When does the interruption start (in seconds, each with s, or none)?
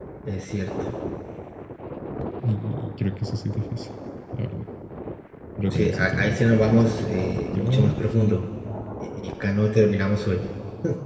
5.7 s